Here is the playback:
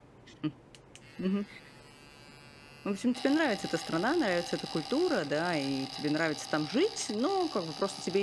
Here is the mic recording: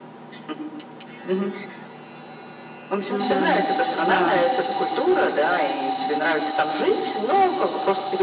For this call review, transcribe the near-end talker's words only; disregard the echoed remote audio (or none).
Мгм. Да.